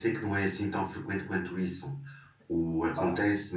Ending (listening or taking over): listening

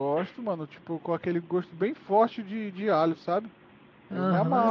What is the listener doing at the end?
taking over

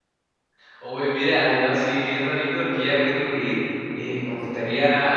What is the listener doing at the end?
listening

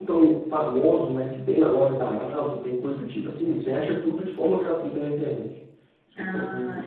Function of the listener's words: taking over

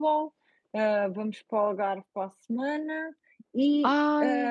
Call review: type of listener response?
listening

